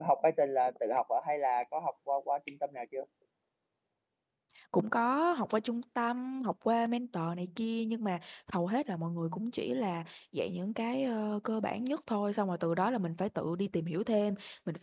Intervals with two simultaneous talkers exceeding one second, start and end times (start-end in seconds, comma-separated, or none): none